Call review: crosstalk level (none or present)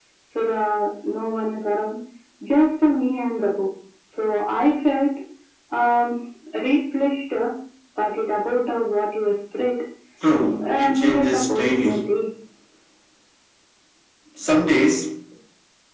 present